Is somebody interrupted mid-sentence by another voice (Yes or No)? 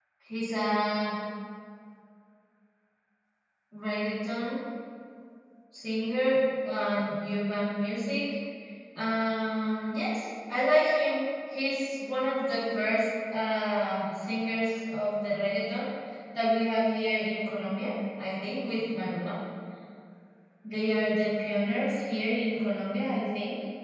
No